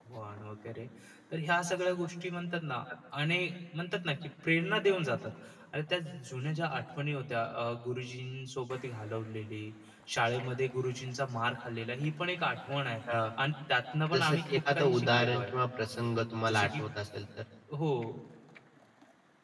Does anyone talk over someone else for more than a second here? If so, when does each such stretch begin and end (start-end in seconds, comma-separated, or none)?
14.1-15.5